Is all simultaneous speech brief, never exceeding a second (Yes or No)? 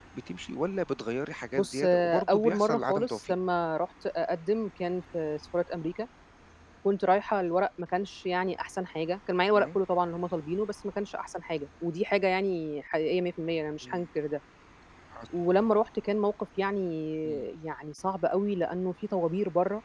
No